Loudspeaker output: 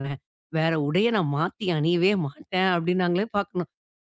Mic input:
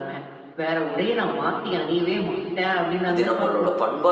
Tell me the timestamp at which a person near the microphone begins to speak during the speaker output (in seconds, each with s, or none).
3.1 s